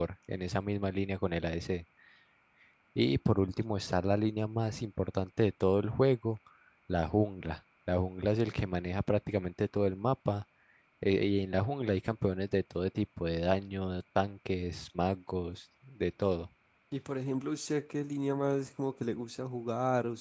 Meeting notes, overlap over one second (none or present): none